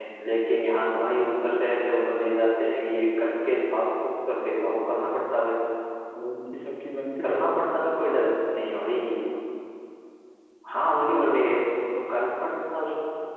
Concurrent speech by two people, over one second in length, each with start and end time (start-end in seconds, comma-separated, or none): none